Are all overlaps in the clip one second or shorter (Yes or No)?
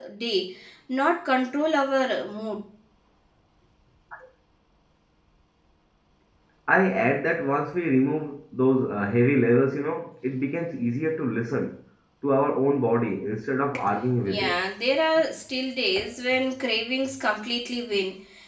Yes